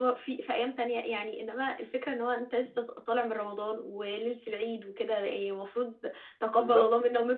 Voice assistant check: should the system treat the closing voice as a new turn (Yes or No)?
No